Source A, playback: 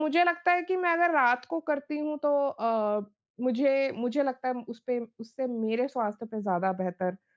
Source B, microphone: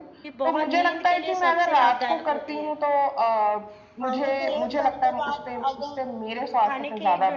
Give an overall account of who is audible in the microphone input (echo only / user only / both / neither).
both